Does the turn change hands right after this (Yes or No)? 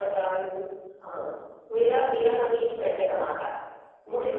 Yes